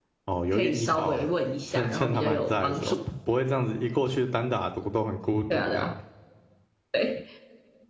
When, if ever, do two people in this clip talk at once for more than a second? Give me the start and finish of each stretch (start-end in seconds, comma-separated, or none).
0.5-3.0